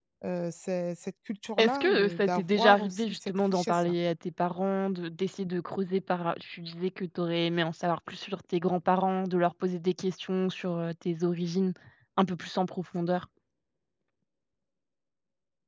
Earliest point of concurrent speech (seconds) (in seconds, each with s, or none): 1.6 s